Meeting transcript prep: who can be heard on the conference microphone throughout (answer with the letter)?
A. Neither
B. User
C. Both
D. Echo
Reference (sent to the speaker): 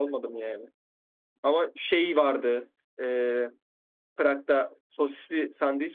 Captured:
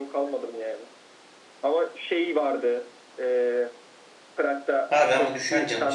C